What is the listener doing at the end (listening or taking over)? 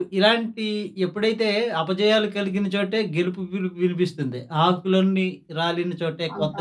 taking over